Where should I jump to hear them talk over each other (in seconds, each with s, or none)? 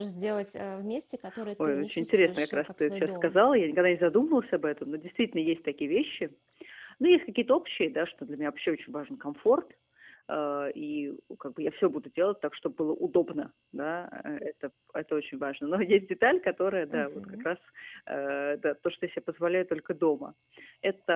1.6 s